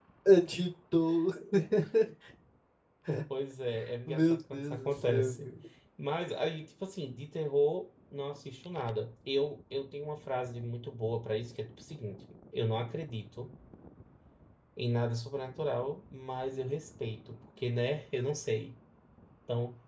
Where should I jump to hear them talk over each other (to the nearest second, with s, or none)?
4 s